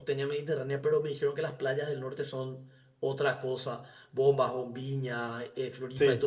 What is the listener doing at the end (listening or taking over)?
listening